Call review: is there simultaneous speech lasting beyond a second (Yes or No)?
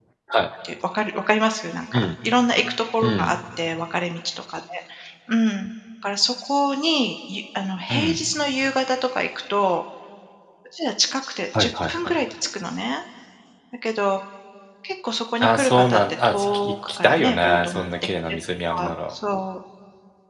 Yes